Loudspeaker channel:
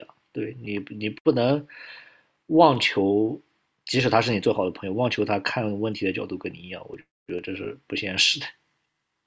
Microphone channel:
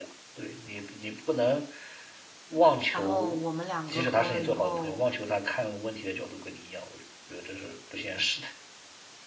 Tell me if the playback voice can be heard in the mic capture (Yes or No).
Yes